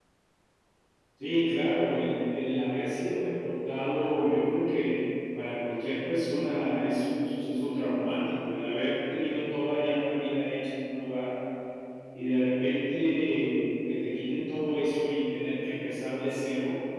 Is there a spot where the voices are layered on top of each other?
No

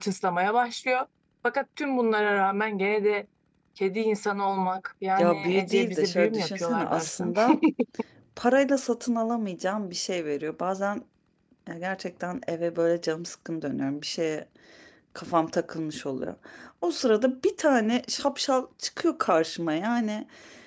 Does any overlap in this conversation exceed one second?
Yes, from 5.2 s

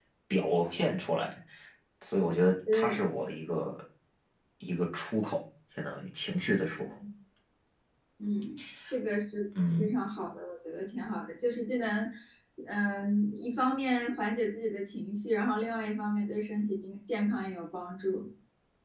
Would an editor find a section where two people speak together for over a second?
No

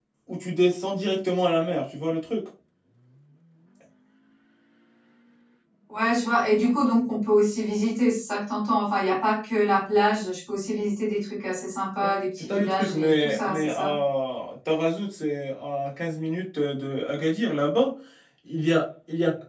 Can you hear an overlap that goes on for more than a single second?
Yes, from 12.4 s

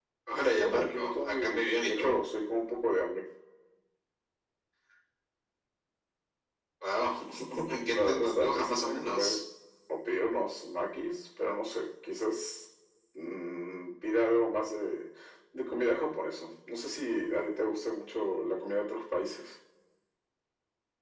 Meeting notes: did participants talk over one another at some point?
Yes, from 0.6 s

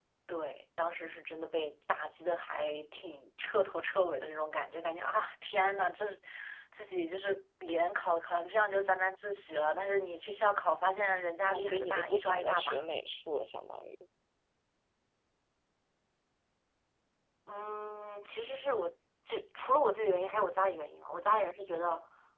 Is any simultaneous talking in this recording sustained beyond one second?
Yes, from 11.4 s

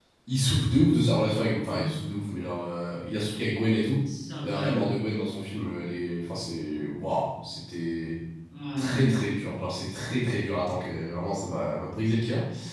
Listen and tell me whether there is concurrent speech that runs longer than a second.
No

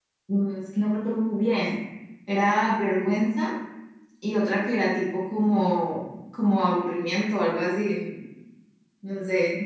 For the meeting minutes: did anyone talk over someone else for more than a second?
No

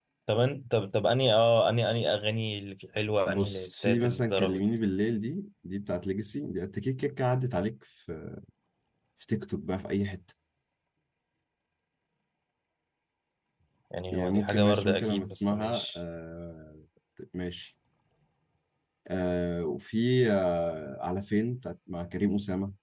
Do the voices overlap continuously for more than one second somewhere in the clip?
Yes, from 3.2 s

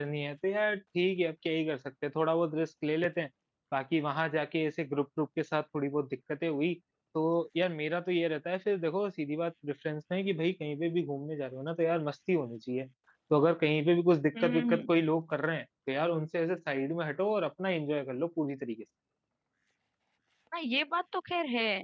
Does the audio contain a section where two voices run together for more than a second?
No

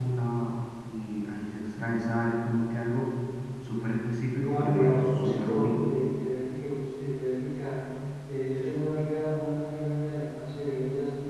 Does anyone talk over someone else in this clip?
Yes, from 4.4 s

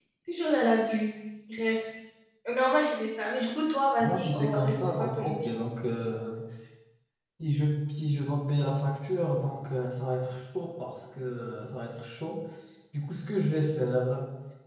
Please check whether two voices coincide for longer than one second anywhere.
Yes, from 4.0 s

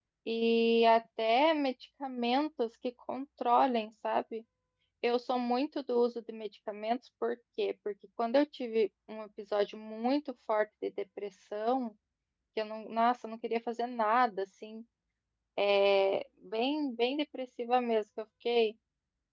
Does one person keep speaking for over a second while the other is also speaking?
No

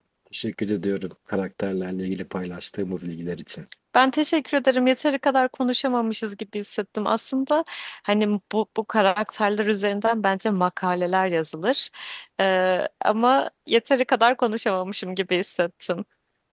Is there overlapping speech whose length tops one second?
No

